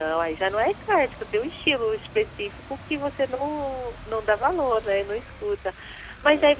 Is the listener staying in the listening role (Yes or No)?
Yes